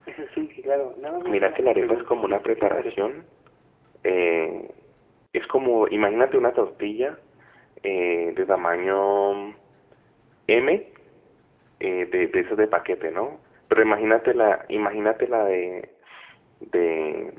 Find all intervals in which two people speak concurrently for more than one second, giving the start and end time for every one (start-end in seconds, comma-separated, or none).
1.3-3.1